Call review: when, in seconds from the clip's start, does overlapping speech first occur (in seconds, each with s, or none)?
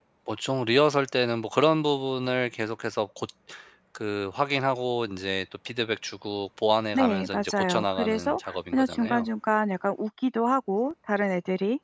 7.0 s